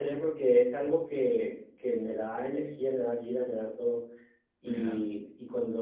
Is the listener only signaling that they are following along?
Yes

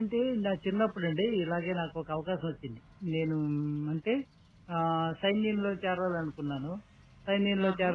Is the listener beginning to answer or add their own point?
No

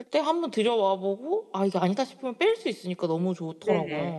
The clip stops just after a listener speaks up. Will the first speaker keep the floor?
No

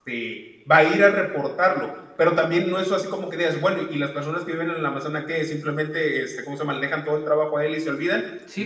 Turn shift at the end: Yes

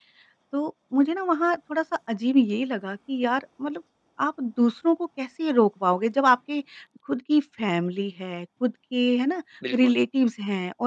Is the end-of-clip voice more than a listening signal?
No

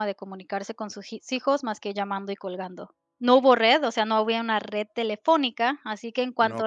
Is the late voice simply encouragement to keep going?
Yes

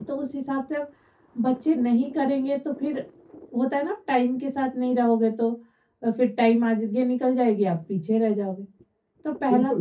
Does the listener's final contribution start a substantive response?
Yes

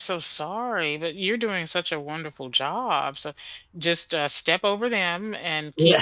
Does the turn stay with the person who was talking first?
Yes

